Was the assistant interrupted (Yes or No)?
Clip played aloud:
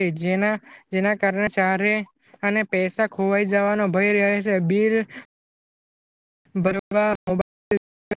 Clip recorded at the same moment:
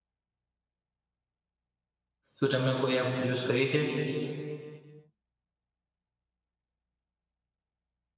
Yes